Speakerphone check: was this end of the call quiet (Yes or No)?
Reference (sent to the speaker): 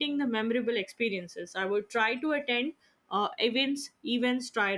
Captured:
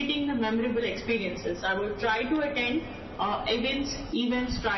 Yes